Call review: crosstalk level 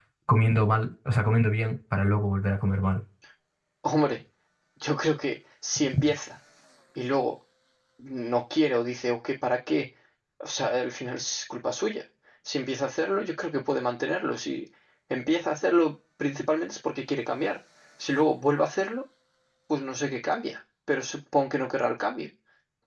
none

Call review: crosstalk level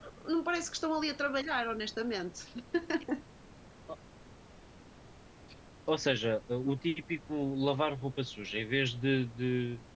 none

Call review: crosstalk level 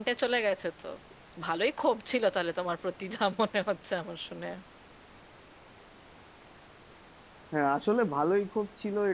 none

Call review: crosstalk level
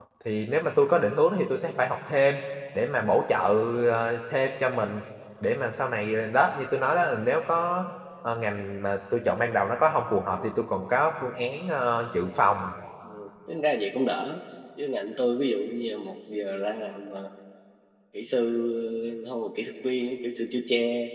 none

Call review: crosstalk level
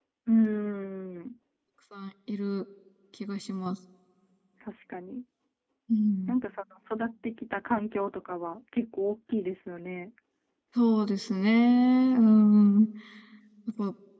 none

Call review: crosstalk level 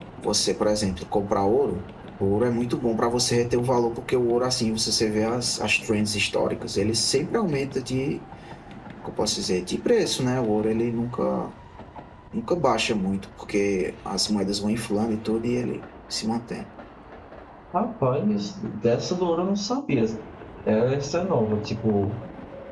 none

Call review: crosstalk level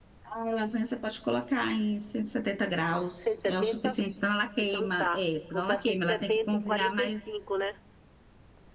present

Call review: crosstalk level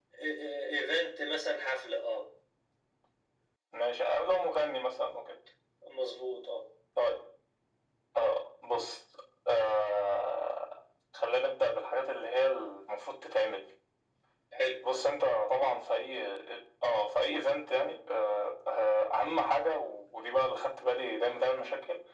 none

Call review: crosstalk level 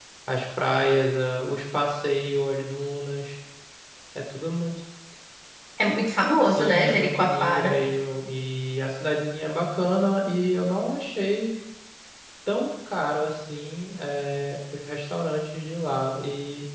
present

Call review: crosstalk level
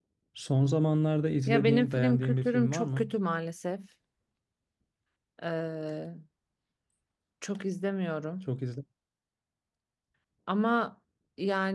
present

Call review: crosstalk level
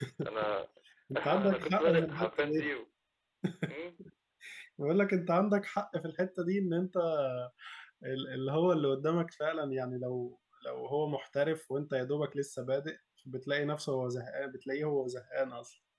present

